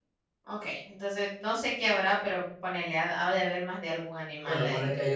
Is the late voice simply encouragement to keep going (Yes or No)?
No